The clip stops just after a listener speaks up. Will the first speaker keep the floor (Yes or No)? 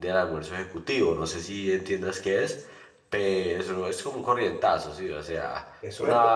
No